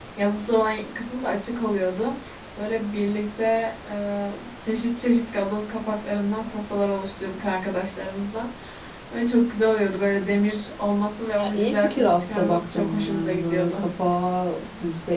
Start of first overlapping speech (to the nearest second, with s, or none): 11 s